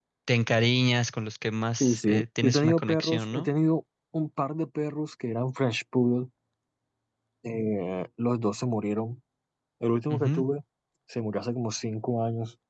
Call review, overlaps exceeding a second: present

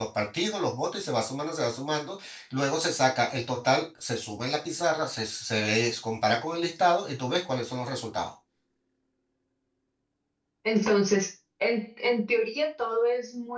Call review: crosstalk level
none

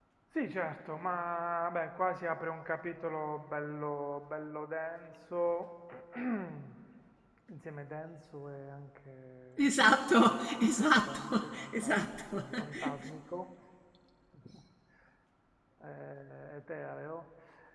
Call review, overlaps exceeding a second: present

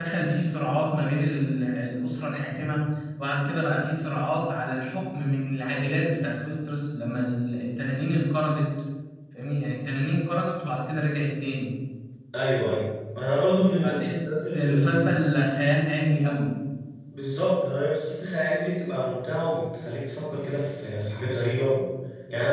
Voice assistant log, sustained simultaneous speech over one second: present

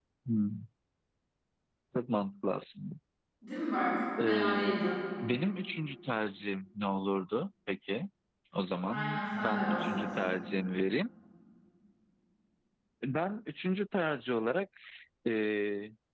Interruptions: present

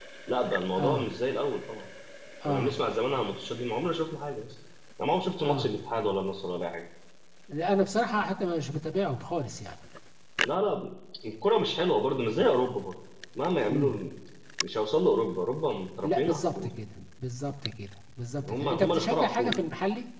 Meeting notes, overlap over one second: present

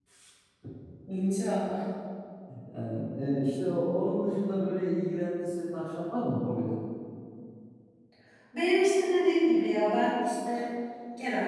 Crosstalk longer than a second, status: none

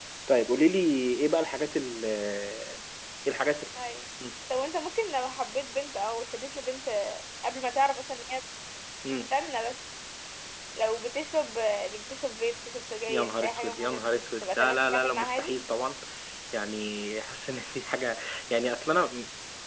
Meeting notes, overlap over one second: present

